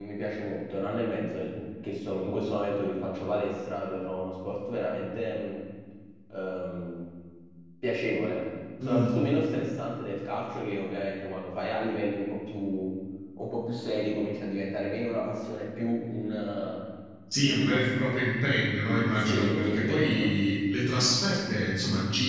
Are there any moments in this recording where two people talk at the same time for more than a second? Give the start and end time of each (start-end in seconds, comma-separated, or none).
18.9-20.3